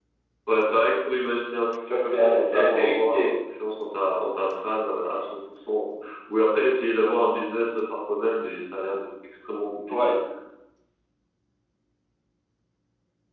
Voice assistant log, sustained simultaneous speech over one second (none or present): present